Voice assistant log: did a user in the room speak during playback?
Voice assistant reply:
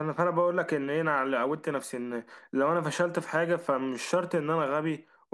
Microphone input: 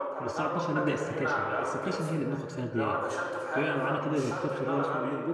Yes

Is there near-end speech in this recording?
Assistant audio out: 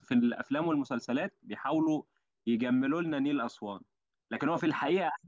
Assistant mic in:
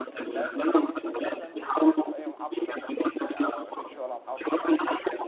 Yes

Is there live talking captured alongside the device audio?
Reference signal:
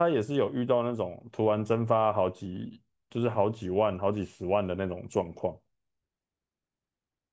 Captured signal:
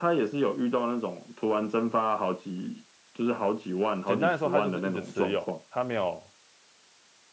Yes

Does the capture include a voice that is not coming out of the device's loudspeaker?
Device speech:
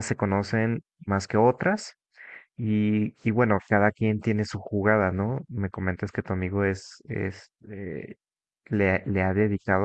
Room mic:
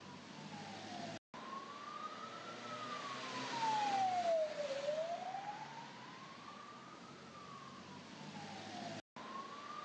No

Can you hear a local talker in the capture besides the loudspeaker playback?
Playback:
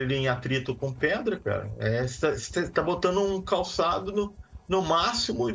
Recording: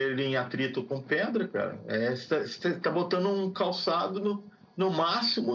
No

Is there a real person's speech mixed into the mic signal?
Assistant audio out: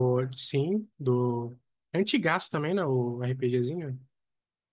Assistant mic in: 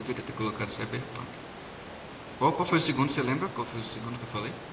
Yes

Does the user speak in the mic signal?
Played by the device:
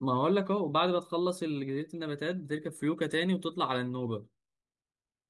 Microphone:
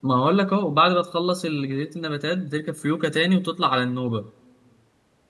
No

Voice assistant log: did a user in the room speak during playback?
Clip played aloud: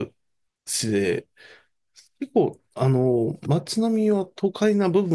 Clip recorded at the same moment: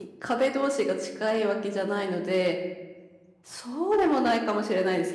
Yes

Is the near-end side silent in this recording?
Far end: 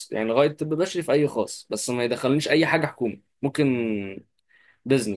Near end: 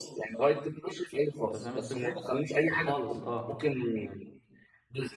No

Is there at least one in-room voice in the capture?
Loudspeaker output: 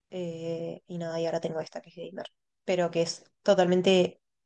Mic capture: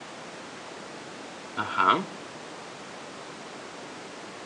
Yes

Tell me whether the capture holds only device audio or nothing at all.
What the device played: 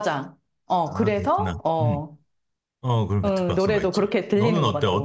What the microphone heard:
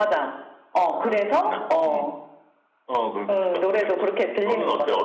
Yes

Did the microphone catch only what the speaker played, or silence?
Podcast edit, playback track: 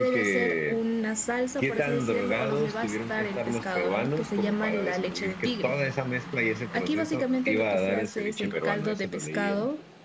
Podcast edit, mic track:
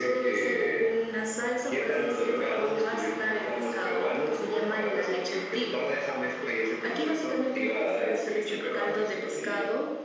Yes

